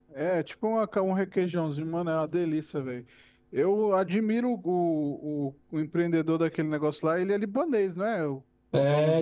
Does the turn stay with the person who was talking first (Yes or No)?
No